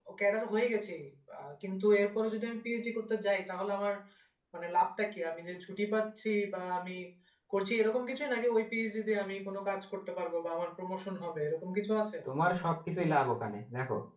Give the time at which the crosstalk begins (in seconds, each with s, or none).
none